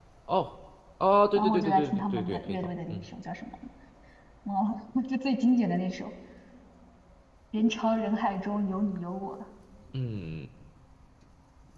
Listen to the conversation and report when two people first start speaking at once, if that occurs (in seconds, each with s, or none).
1.4 s